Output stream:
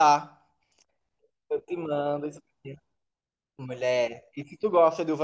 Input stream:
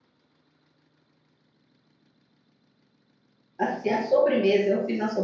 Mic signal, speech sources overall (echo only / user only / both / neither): user only